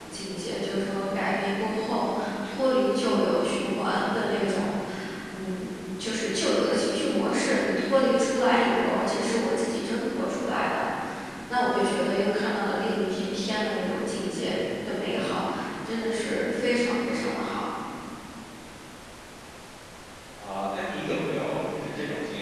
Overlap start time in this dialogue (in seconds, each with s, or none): none